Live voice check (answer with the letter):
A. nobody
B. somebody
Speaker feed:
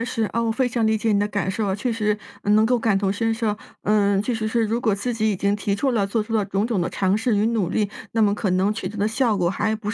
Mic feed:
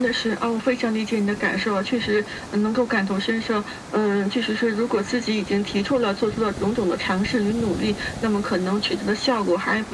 A